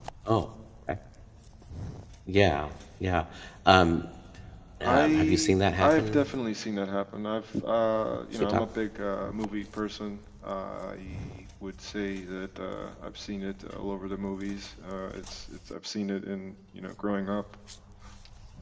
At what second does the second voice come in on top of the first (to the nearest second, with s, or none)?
5 s